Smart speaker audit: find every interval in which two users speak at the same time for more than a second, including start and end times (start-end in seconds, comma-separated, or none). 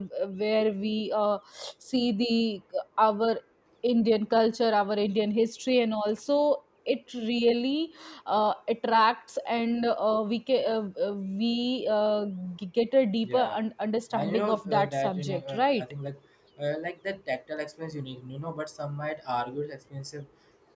14.1-15.8